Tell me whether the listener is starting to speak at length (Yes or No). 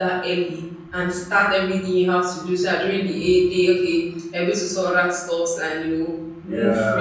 Yes